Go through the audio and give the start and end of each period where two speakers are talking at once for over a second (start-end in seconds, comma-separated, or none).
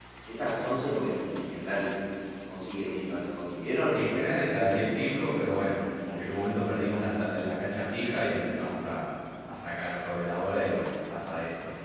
3.9-5.7